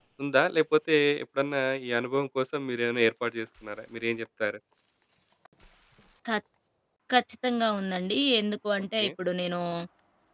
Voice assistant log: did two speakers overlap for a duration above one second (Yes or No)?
No